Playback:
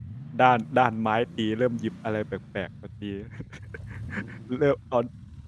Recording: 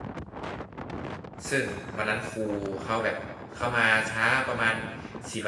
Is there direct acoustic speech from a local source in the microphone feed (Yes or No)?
Yes